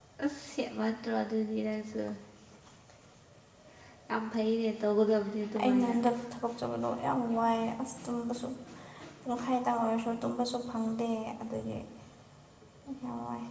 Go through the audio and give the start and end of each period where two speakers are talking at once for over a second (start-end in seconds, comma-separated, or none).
none